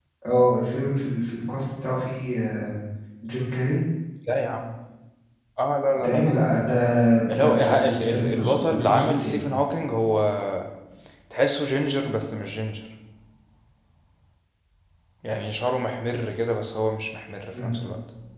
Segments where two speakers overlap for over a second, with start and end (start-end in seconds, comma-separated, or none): 7.4-9.4